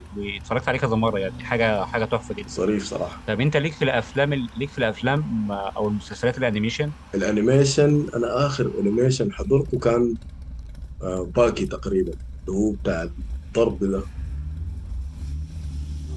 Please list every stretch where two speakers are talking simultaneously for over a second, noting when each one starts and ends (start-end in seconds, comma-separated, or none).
none